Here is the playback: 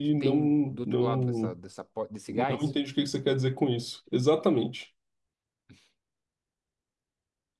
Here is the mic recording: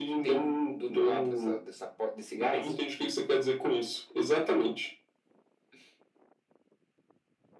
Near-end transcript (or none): none